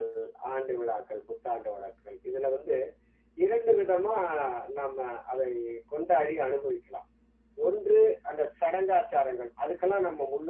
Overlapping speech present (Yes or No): No